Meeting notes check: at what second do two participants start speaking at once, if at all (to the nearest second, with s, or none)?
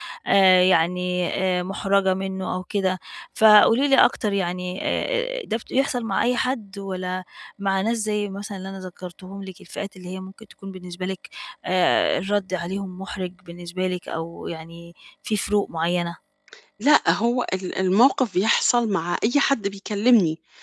none